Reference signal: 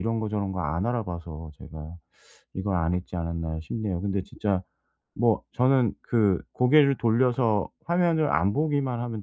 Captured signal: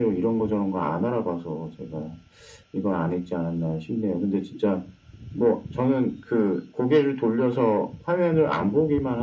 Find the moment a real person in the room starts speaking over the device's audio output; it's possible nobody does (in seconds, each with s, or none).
none